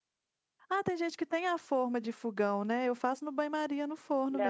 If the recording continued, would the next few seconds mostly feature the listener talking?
Yes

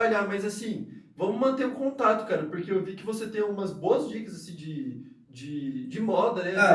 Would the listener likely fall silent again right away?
Yes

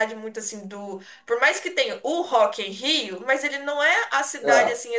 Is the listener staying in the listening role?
Yes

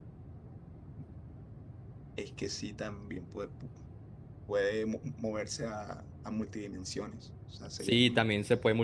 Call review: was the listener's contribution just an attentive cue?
No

